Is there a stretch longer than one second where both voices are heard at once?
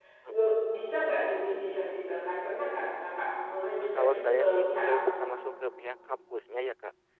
Yes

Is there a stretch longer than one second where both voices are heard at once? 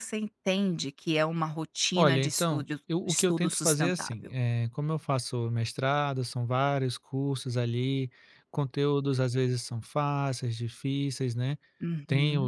Yes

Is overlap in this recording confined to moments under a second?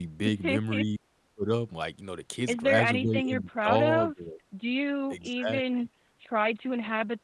No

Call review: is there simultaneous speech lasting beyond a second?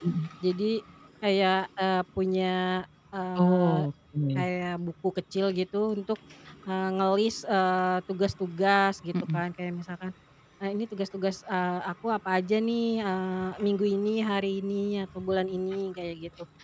No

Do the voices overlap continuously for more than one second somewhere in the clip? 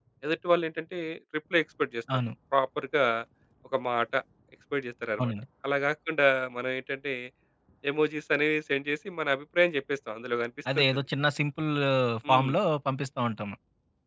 No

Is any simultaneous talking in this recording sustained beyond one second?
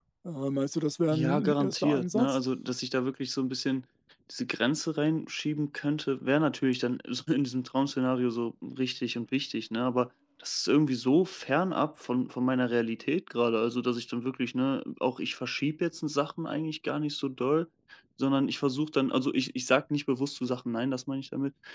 Yes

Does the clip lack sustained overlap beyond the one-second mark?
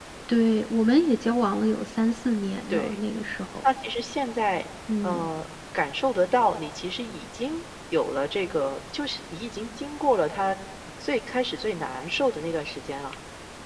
Yes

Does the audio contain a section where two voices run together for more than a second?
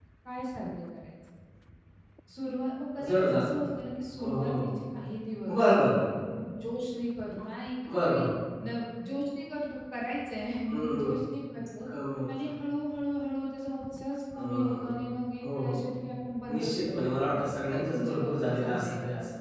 Yes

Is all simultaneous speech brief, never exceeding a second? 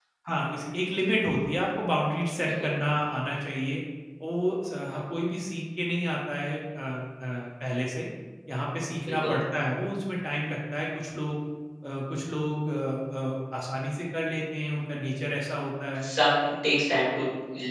Yes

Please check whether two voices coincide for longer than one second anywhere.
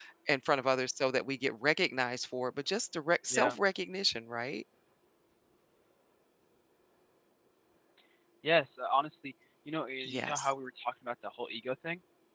No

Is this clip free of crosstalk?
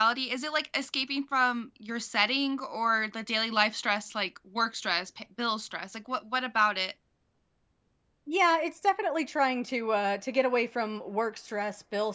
Yes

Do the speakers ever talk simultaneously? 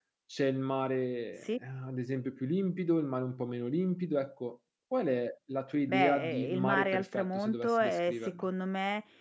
Yes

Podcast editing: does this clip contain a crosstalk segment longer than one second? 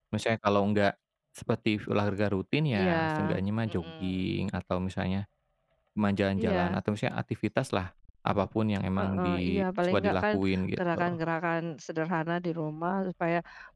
Yes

